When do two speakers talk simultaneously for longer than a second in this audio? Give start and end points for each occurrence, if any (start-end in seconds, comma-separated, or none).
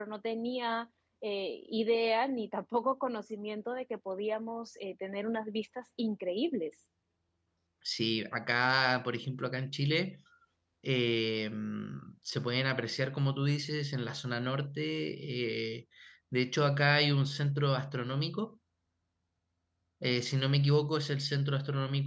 none